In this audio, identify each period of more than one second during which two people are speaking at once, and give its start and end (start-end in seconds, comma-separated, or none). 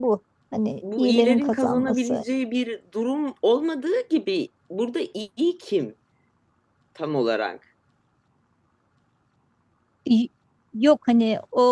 1.0-2.2